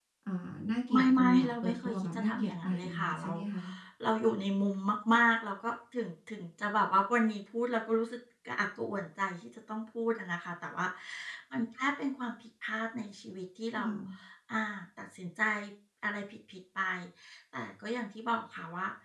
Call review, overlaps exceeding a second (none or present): present